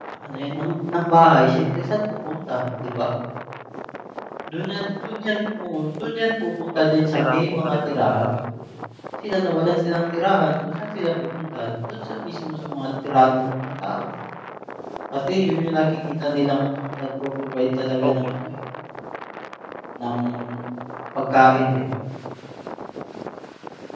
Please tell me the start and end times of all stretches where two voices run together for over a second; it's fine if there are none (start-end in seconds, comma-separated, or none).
6.8-8.3